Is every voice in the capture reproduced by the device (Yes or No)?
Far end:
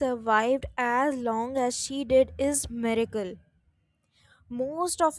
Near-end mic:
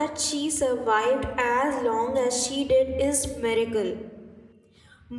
Yes